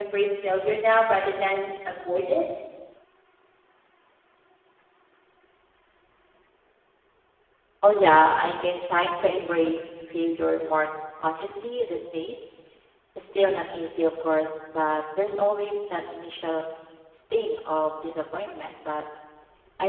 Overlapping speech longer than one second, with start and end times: none

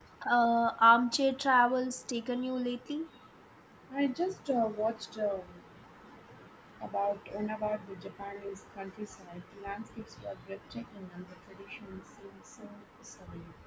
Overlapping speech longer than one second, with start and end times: none

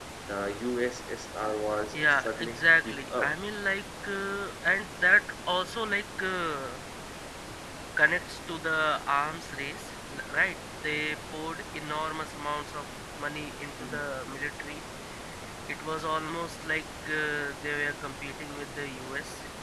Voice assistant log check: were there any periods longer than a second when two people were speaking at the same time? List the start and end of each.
1.9-3.4

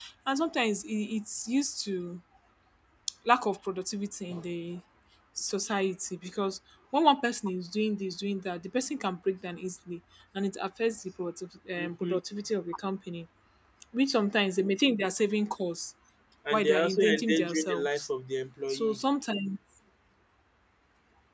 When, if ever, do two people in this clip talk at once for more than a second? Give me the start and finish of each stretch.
16.5-18.0

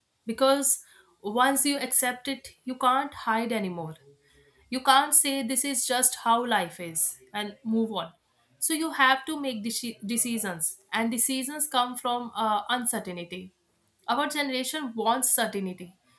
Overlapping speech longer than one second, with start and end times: none

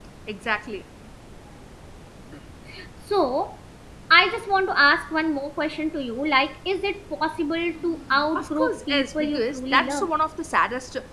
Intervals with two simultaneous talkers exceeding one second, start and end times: 8.3-10.1

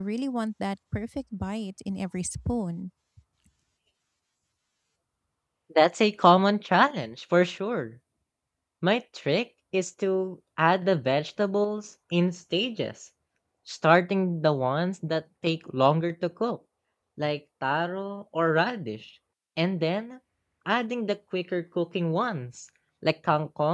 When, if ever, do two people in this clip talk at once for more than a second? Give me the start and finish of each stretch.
none

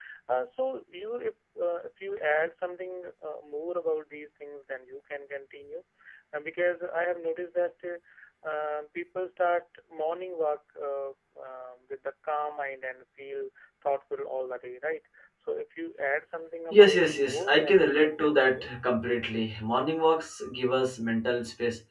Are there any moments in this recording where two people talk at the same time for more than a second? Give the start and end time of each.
16.7-18.7

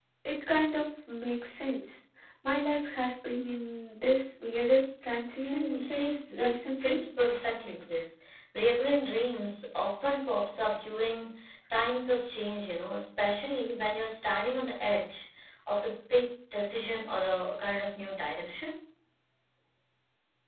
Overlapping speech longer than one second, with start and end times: 5.4-7.0

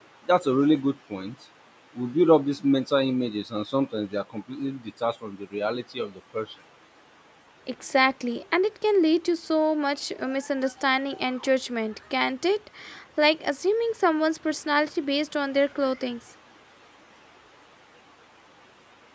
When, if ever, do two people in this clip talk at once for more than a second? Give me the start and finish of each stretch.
none

